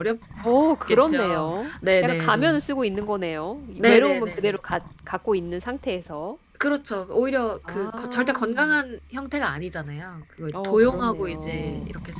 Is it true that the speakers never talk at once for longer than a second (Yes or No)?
No